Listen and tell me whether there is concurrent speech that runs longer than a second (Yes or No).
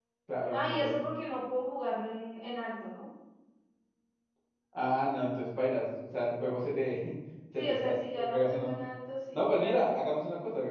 Yes